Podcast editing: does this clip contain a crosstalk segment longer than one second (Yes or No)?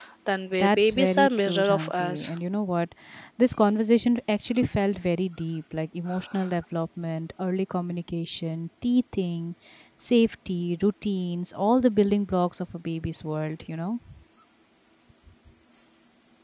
Yes